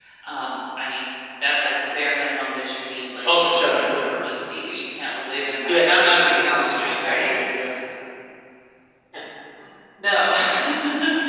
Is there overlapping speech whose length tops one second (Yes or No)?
Yes